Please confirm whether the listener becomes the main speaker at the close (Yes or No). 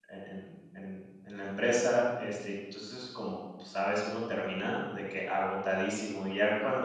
No